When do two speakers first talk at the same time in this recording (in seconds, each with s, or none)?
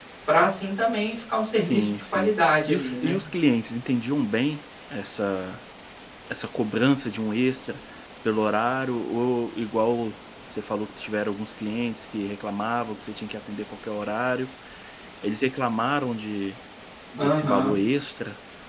1.6 s